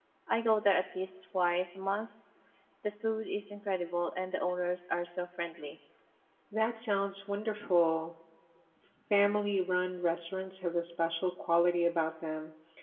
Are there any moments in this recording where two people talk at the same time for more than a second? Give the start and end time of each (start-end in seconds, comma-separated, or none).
none